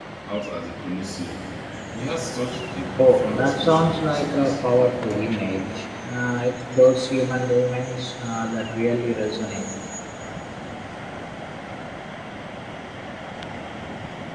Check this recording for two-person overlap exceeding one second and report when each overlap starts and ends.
3.0-4.6

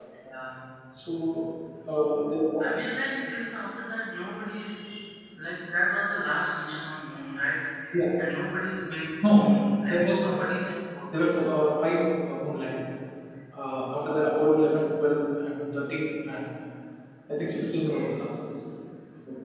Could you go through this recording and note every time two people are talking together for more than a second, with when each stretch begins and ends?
none

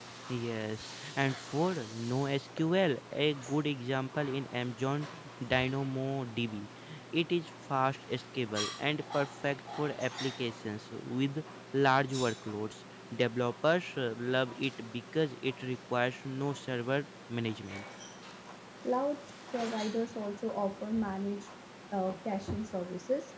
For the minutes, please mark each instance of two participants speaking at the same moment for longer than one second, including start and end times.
none

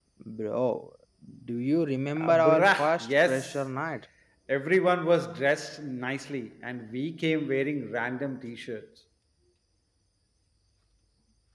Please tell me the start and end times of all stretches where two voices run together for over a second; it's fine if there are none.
2.1-3.7

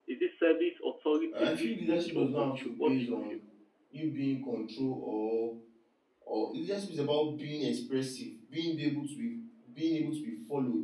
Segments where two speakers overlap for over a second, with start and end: 1.3-3.3

